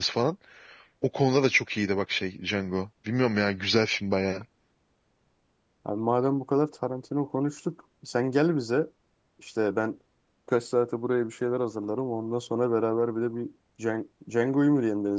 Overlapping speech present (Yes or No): No